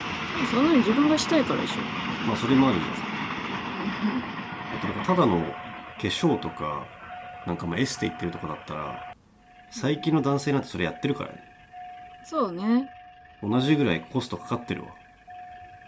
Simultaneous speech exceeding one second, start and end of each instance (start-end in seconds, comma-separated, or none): none